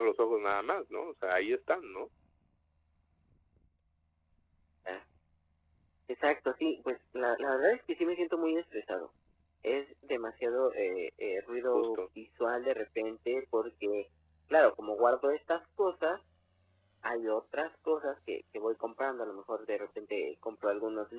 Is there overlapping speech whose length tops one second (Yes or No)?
No